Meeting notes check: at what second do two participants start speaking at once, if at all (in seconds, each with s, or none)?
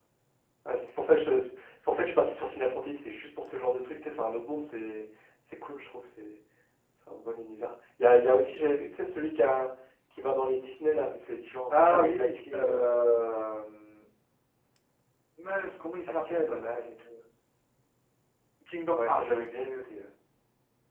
11.7 s